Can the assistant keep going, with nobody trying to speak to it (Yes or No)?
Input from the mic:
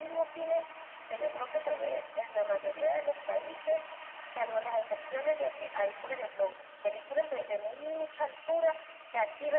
Yes